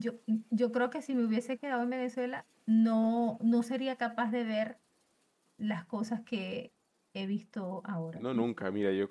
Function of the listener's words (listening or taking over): taking over